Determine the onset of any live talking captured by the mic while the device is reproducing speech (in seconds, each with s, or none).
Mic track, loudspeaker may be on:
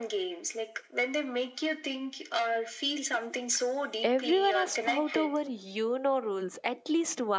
4.0 s